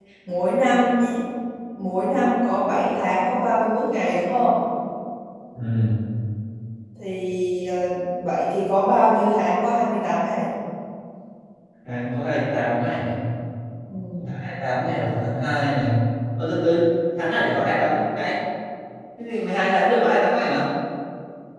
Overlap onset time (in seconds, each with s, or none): none